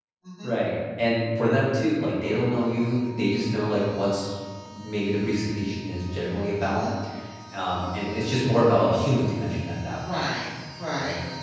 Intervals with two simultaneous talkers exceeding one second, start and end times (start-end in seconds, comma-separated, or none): none